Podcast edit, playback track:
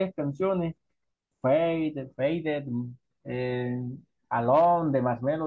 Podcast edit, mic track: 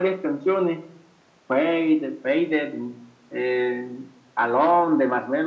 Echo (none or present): present